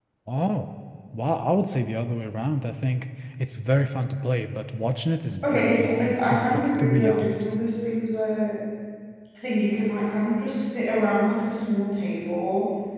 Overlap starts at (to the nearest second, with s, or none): 5 s